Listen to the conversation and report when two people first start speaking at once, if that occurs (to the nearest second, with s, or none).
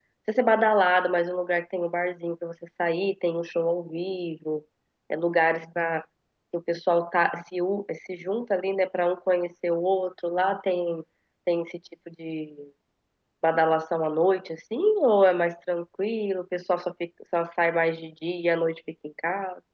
none